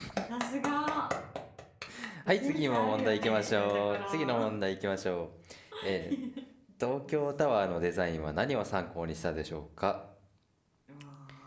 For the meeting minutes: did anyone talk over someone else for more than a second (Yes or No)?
Yes